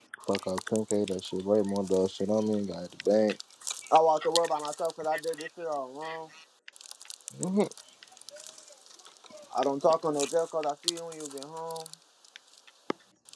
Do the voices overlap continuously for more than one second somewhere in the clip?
No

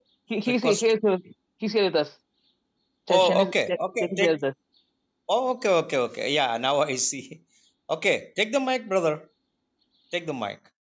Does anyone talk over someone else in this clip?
Yes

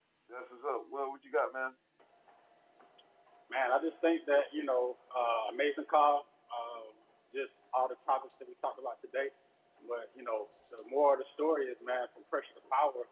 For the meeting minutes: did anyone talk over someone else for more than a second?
No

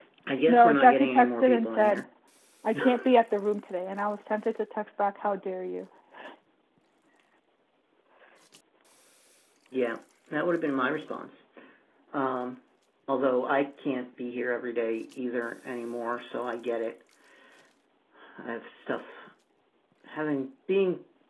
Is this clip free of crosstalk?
No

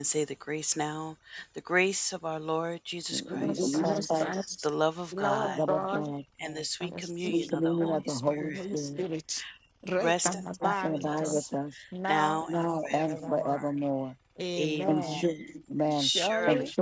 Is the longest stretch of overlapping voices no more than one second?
No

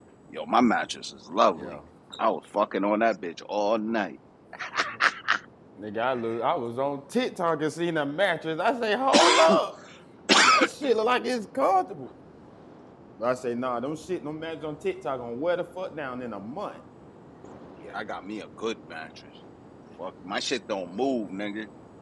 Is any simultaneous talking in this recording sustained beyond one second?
No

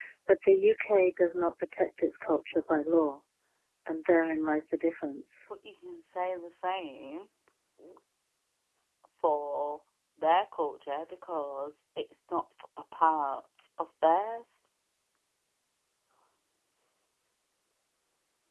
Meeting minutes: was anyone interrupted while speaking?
No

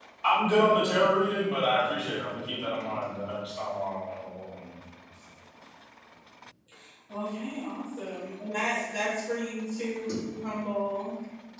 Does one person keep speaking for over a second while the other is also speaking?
No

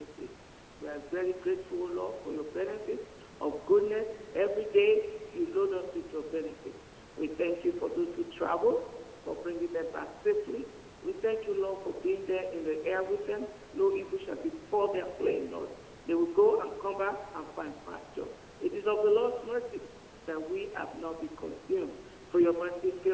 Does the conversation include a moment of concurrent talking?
No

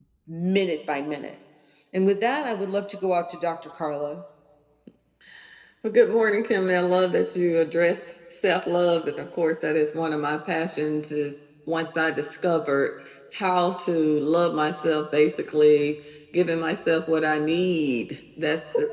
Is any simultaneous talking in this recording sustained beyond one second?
No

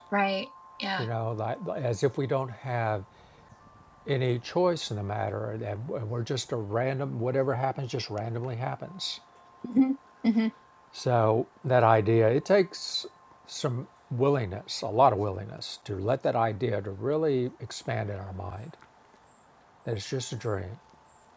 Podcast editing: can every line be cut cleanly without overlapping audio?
Yes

